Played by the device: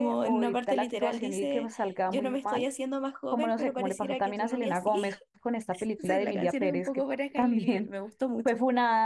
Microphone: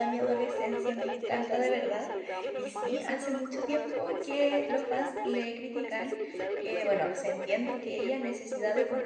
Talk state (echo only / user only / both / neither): both